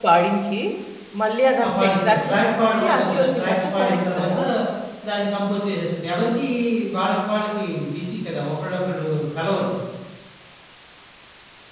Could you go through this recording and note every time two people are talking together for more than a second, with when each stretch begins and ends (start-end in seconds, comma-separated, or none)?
1.6-4.4